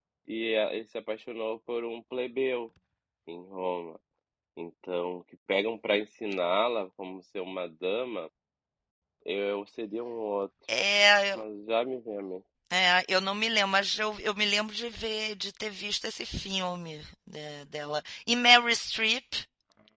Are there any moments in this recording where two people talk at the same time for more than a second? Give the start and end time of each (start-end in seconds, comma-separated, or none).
none